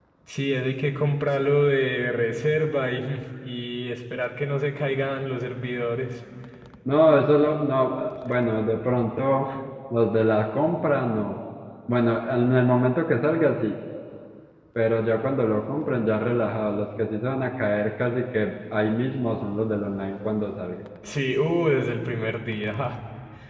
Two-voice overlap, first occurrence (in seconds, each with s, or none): none